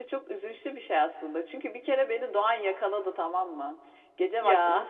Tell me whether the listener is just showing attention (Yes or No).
Yes